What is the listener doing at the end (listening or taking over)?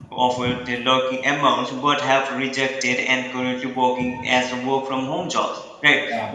listening